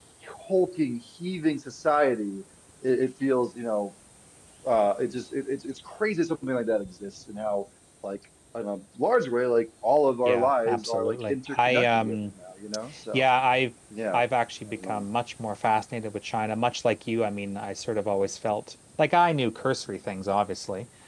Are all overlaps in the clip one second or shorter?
No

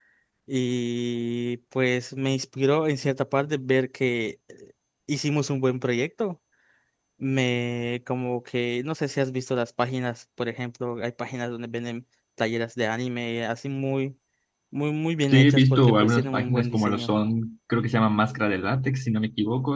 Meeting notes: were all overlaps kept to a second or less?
No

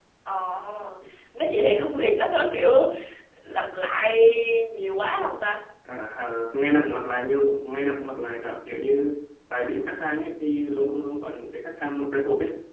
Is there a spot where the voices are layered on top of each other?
No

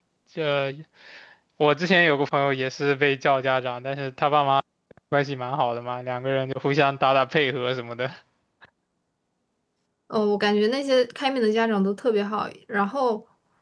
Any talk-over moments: No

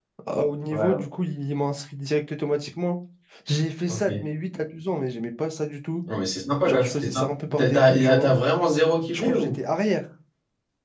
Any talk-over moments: Yes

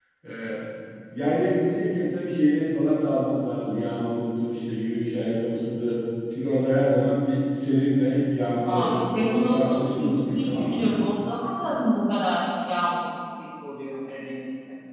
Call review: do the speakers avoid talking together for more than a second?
No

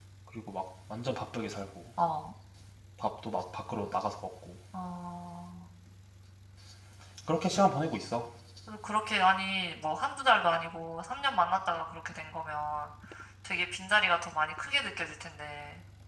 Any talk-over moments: No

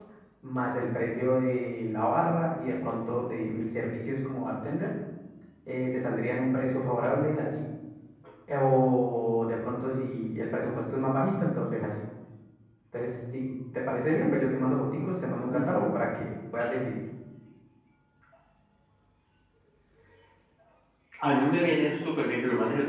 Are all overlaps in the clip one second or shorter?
Yes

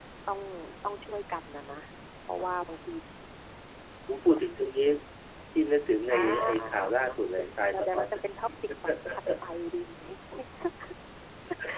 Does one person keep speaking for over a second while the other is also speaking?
Yes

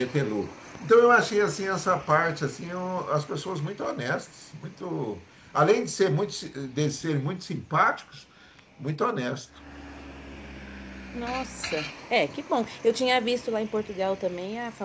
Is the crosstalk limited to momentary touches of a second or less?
Yes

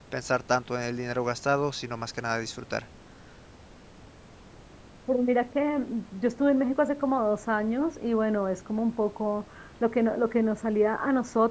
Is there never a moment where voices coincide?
Yes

